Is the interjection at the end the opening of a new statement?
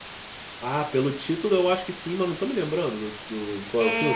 Yes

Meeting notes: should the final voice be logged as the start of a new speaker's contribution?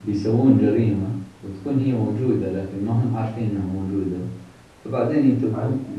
No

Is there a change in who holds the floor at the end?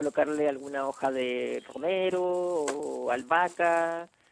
No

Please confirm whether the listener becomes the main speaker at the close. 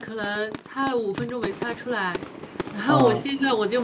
No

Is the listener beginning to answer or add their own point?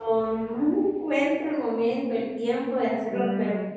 No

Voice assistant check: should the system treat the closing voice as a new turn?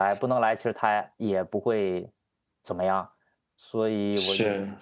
No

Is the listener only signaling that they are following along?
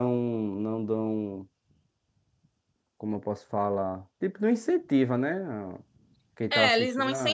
No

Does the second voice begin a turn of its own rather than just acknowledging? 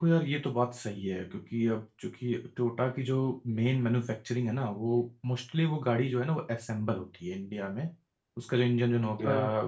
No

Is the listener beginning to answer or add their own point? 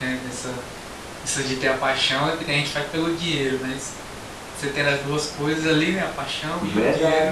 Yes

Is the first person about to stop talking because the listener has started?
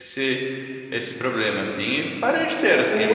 Yes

